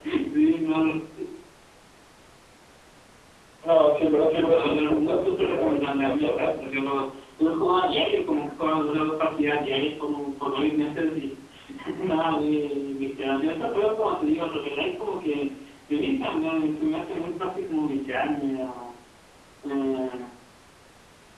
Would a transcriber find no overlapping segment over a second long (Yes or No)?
No